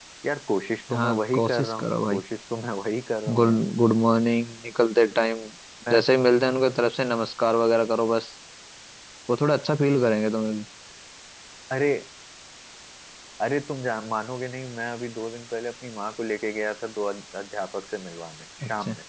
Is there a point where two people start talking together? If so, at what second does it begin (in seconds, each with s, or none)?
0.9 s